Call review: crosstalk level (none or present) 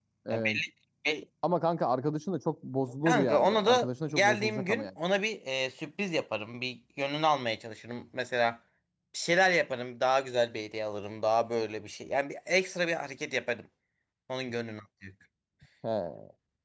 present